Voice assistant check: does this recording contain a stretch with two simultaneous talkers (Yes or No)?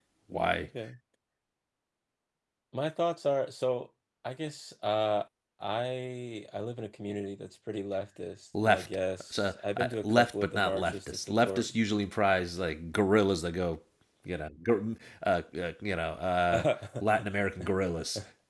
Yes